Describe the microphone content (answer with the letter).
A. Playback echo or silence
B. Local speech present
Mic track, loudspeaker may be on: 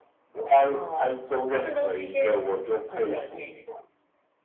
B